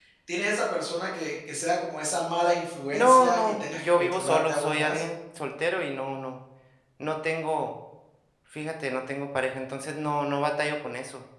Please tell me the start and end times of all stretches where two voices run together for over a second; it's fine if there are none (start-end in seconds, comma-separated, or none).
2.9-5.0